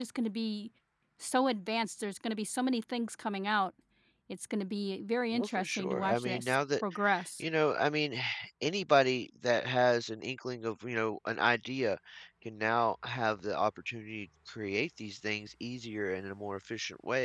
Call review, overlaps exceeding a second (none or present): present